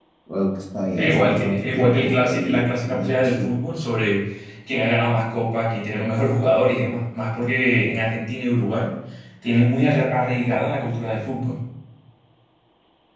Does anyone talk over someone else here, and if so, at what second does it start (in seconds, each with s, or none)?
1.0 s